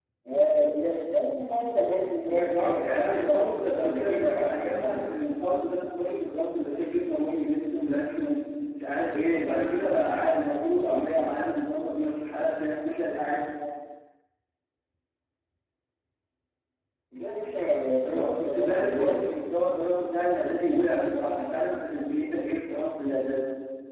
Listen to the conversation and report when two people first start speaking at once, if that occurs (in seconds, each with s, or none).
2.3 s